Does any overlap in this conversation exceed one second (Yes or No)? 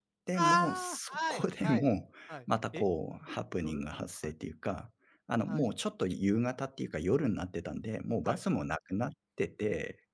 Yes